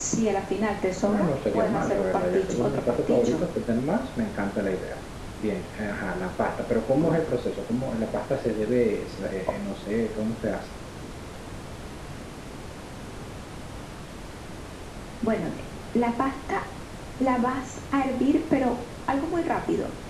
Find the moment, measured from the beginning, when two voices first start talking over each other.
1.0 s

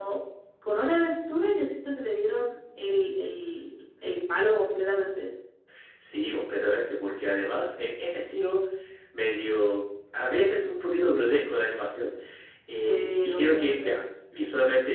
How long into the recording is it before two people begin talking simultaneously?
12.7 s

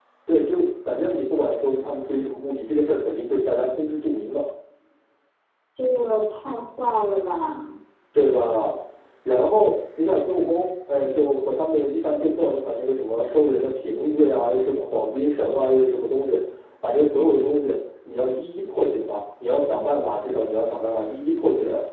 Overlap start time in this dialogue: none

